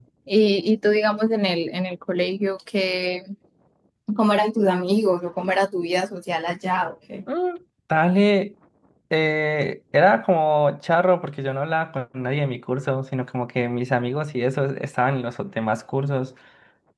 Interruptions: none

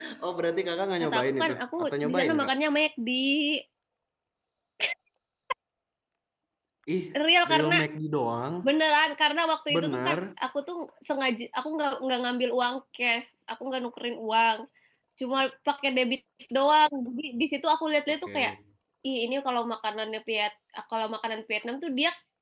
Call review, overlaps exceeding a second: present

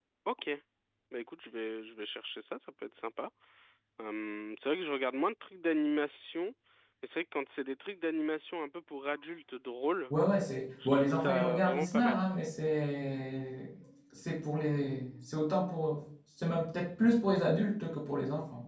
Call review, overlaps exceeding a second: present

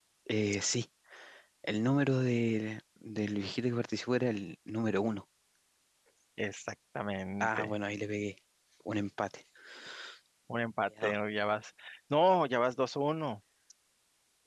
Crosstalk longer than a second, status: none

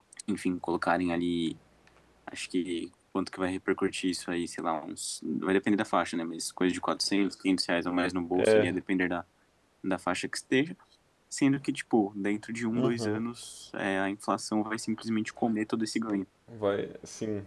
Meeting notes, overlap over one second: none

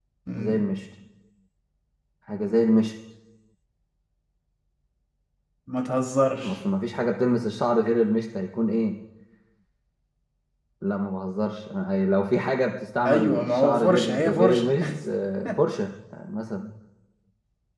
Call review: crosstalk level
present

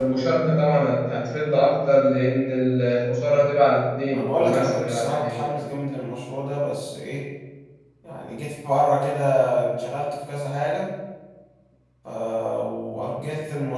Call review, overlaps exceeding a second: present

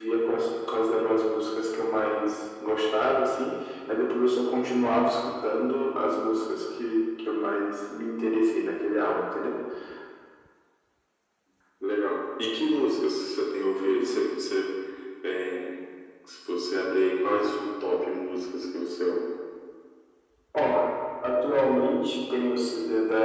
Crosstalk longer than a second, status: none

